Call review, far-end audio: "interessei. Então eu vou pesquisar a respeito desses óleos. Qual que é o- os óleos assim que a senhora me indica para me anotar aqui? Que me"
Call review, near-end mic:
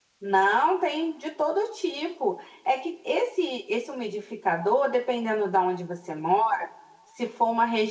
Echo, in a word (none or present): none